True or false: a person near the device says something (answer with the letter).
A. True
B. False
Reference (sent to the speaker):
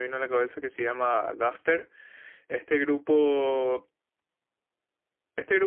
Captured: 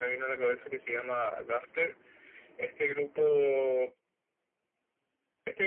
B